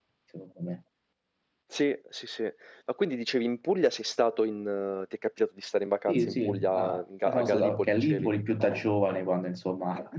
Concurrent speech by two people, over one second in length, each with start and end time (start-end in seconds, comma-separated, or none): 6.1-8.3